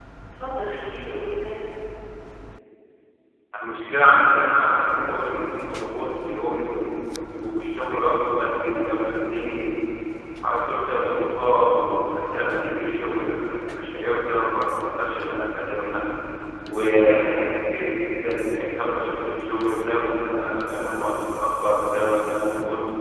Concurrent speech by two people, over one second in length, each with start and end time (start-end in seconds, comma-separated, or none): none